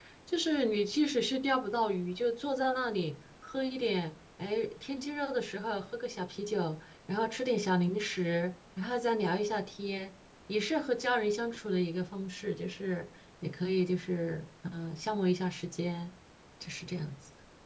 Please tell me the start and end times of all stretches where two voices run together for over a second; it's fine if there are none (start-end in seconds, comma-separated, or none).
none